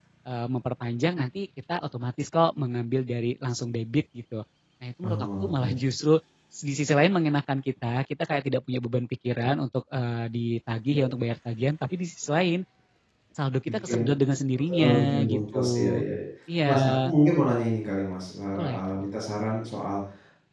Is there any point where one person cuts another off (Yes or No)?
Yes